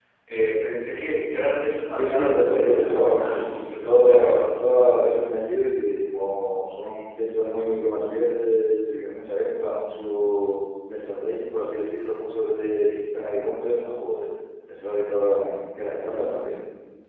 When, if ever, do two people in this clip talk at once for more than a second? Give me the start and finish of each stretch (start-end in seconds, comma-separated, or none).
2.0-4.5